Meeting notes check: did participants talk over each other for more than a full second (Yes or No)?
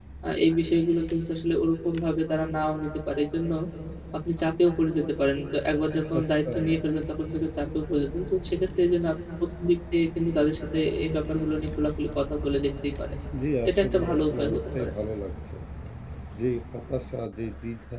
Yes